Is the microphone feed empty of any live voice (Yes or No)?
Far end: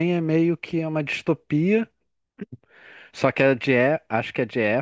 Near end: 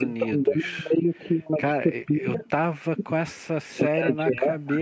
No